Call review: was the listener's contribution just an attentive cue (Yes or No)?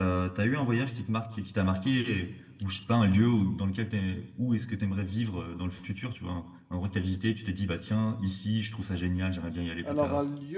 No